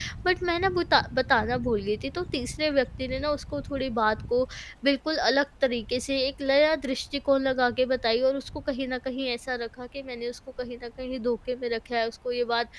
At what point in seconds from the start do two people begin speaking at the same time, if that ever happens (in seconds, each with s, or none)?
none